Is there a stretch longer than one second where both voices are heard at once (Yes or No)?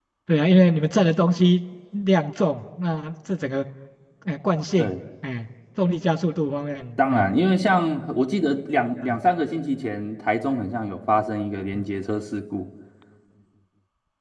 No